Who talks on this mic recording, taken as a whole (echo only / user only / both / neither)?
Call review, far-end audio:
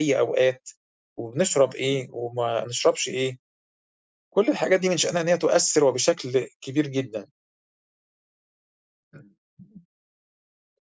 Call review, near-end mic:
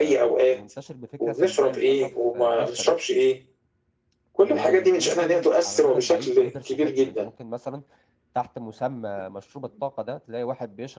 both